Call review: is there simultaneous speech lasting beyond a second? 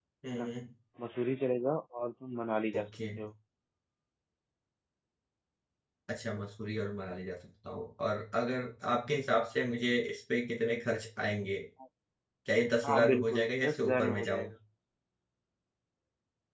Yes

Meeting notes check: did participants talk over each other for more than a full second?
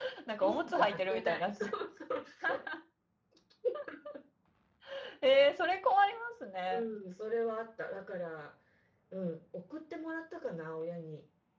Yes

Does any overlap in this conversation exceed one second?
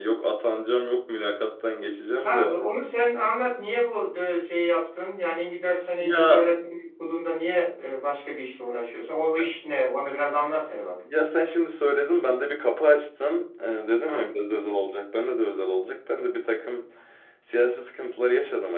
No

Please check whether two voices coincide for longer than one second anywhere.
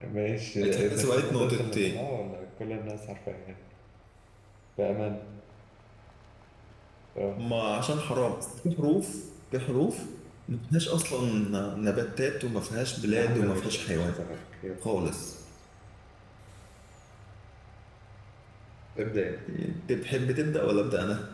Yes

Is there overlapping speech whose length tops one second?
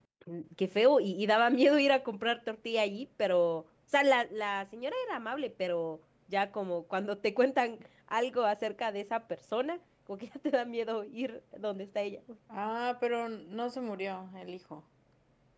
No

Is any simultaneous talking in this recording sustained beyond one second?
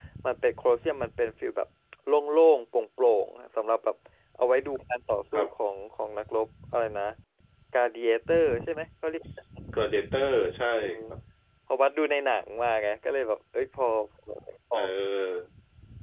No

